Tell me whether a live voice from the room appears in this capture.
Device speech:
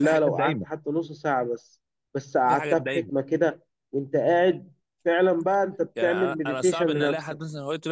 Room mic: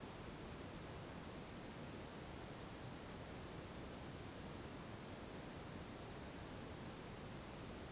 No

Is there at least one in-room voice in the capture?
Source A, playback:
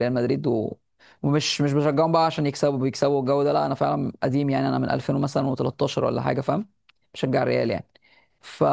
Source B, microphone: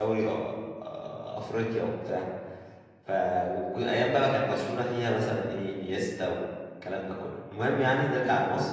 Yes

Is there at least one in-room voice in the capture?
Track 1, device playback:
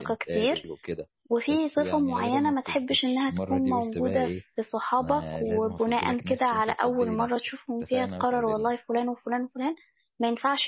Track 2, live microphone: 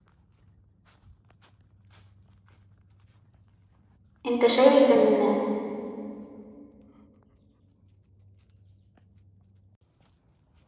Yes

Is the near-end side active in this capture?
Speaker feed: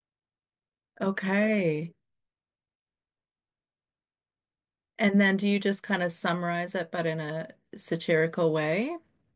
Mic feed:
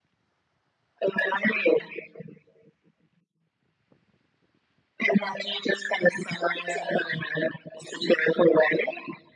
No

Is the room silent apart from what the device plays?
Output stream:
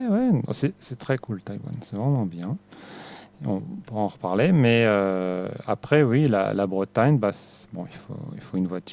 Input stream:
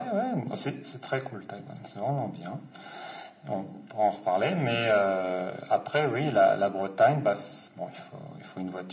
Yes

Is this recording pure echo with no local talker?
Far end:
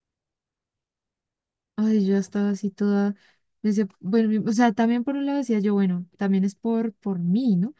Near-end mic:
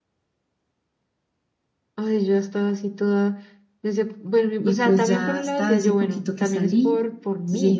No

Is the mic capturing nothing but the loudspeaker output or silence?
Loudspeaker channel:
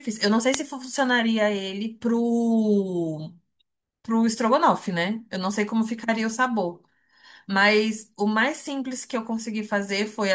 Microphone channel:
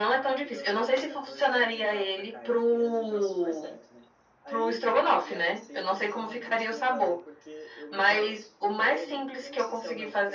No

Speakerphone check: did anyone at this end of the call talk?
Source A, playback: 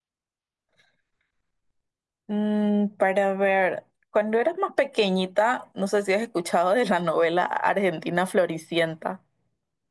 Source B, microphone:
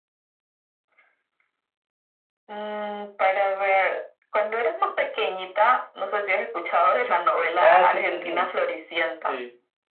Yes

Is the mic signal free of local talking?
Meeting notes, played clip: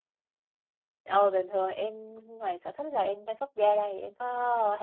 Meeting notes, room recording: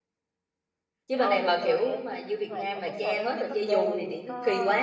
No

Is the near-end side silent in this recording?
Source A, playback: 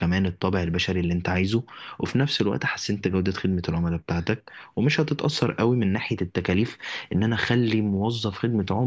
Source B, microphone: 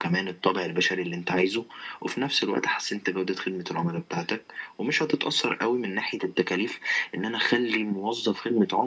Yes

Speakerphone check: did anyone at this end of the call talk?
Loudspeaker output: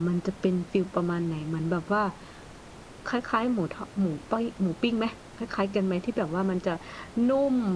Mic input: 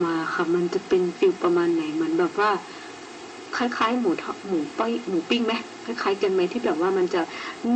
No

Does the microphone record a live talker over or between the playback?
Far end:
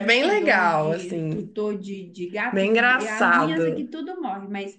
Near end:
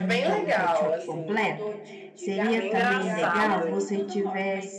Yes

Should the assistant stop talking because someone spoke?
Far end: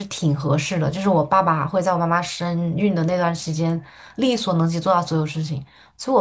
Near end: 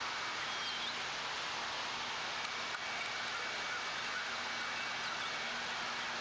No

